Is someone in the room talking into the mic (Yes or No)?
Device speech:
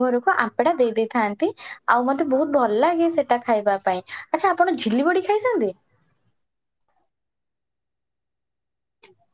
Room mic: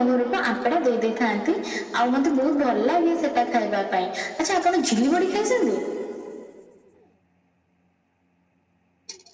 No